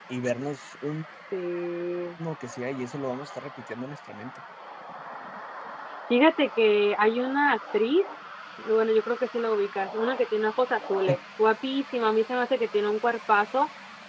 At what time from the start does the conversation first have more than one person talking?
none

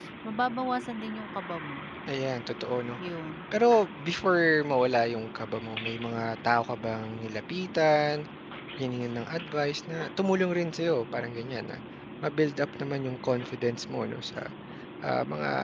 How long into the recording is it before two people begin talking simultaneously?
none

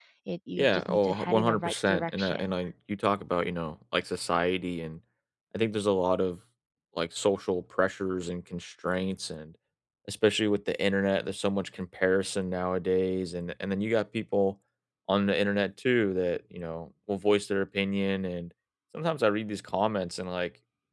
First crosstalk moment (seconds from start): 0.6 s

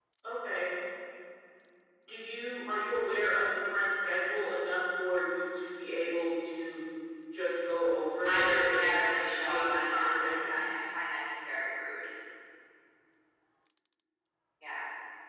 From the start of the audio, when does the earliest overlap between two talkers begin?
8.2 s

